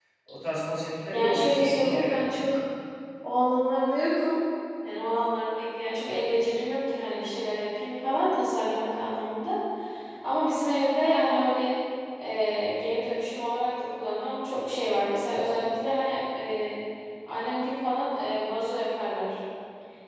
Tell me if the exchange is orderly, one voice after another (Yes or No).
No